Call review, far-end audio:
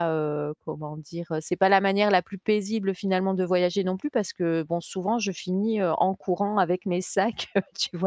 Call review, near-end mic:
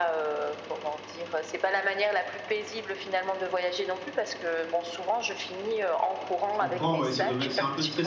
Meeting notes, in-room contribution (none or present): present